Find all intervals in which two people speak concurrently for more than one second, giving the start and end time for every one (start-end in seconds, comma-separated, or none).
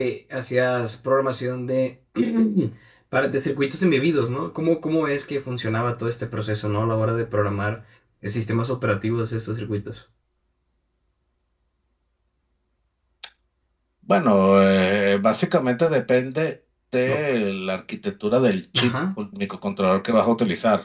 none